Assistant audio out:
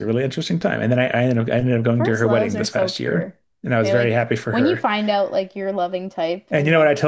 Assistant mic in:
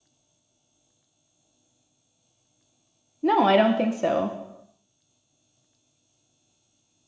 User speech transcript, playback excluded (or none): no, I don't think so.